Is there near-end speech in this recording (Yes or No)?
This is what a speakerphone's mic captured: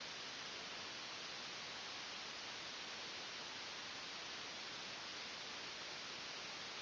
No